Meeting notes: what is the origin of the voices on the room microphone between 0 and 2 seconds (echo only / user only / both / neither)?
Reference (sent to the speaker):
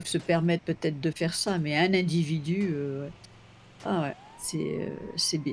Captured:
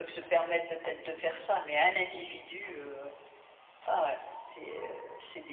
echo only